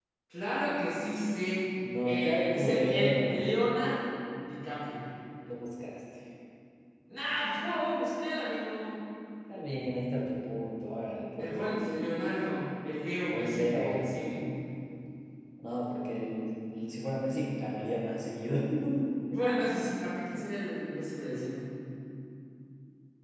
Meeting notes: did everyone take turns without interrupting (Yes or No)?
No